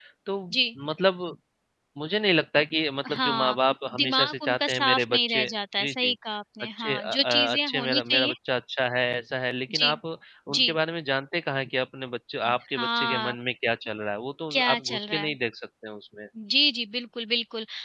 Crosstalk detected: Yes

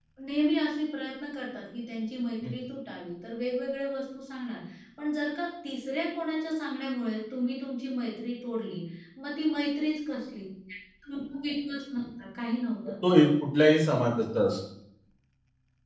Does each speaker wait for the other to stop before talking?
Yes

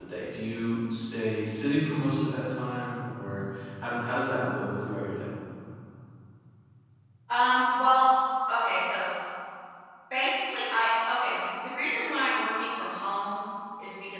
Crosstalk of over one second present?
No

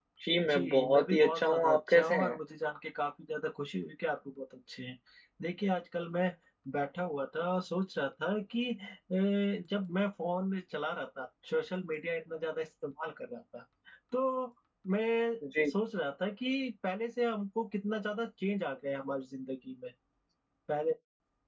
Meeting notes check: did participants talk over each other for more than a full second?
Yes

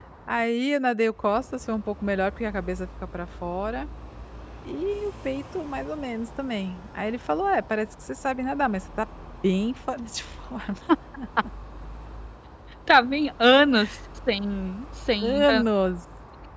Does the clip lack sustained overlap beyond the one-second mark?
Yes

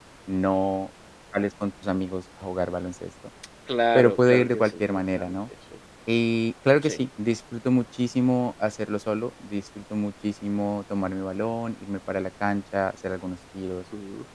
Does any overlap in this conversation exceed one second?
Yes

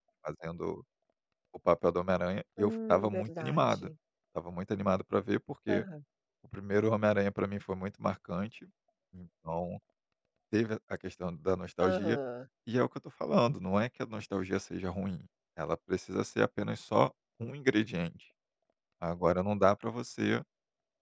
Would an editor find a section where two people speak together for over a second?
Yes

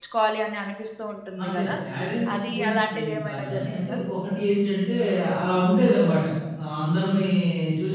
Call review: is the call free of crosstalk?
No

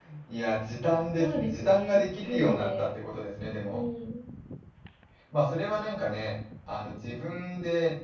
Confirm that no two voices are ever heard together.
No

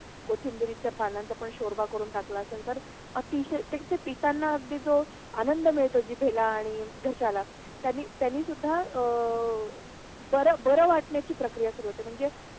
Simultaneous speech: No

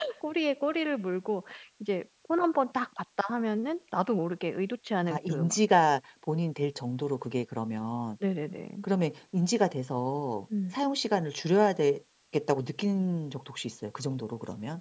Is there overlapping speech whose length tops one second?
No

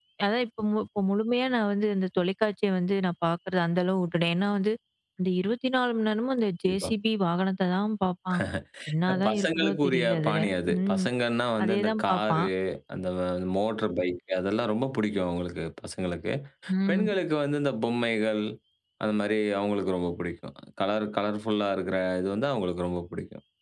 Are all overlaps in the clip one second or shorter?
No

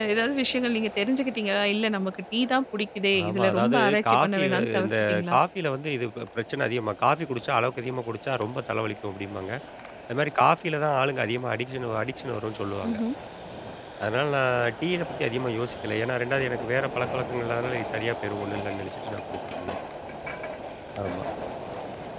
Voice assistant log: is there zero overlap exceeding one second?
No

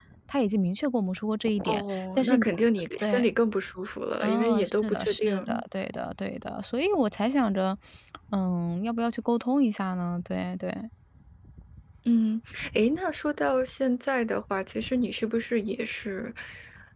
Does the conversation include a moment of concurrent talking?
Yes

